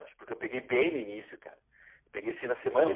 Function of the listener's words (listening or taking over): taking over